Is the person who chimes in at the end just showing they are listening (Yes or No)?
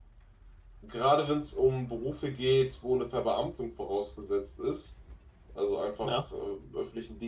Yes